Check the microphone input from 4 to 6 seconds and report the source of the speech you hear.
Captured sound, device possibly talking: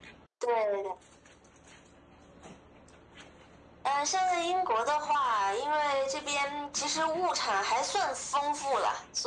echo only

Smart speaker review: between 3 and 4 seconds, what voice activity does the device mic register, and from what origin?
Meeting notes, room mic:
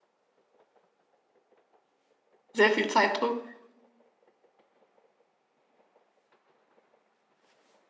user only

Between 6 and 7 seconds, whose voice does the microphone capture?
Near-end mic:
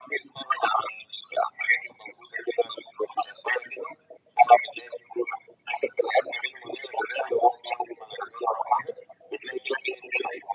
echo only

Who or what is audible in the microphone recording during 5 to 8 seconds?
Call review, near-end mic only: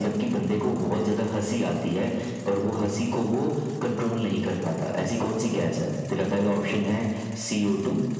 echo only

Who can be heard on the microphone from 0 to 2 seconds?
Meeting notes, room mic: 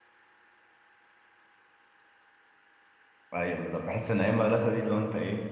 neither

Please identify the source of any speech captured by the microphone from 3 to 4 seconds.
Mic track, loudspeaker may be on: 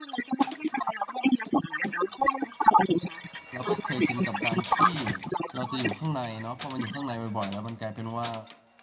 both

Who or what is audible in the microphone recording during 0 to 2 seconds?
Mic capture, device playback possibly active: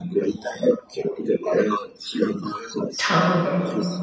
echo only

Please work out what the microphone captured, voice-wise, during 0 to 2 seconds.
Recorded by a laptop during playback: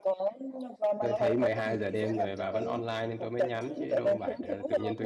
both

